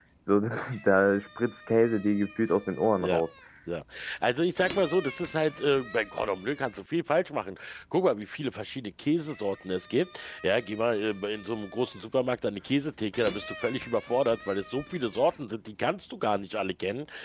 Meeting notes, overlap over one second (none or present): none